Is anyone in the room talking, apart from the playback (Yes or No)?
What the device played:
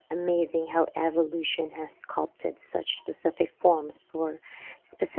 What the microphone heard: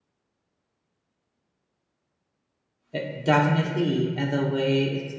Yes